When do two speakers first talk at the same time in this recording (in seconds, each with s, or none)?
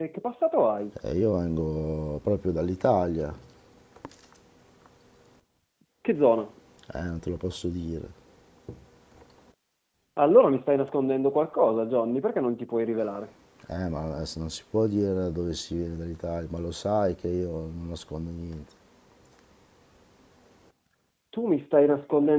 none